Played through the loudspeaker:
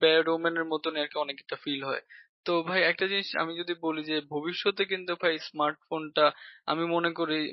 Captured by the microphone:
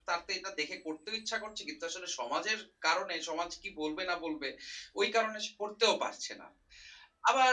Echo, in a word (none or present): none